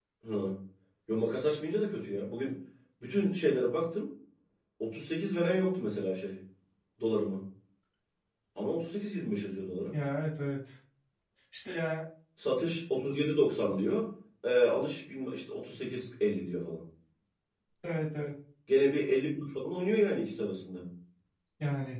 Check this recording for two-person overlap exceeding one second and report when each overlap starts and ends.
none

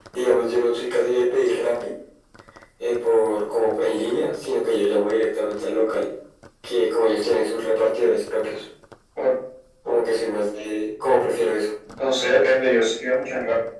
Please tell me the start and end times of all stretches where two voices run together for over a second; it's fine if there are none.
none

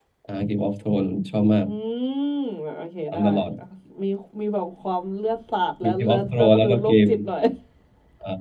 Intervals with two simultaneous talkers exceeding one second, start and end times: 5.8-7.1

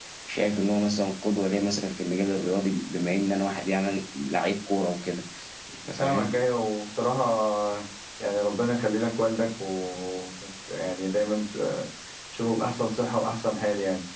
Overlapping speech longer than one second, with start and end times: none

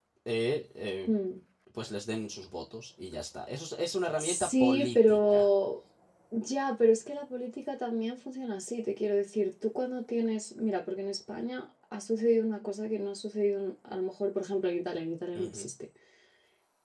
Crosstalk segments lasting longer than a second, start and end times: 4.2-5.5

